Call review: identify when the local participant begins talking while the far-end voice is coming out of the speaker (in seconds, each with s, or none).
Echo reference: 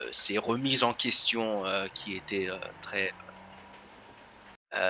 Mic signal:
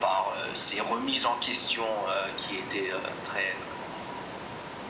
none